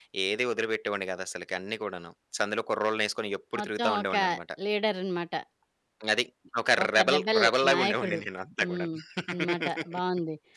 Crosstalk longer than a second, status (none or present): present